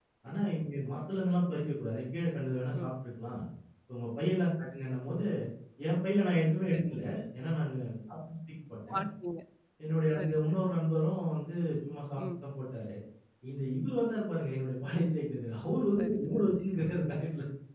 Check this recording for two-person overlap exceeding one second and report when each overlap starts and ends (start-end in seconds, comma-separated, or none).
none